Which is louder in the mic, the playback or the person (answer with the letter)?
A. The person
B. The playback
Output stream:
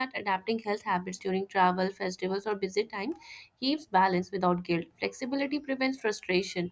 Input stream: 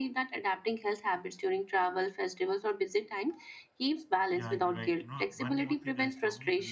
B